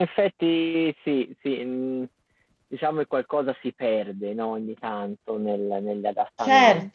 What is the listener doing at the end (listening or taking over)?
taking over